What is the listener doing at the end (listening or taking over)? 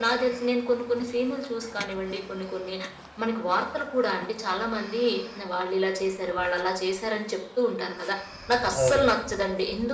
listening